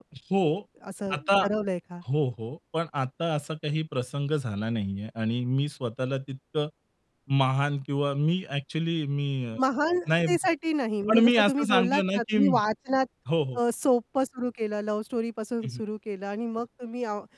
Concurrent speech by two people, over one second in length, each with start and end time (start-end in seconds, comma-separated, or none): 11.1-12.4